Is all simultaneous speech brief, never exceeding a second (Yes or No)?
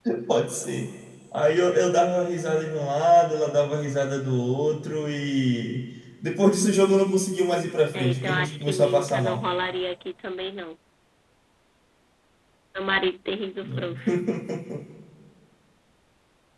No